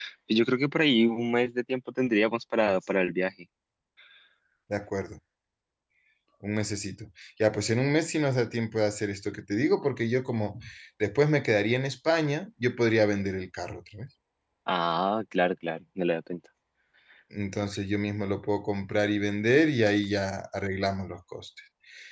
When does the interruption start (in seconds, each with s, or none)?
none